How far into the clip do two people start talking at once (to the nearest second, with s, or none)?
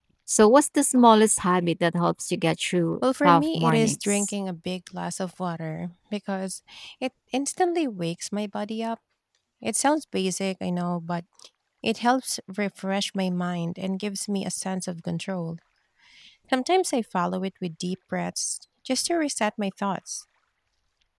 3 s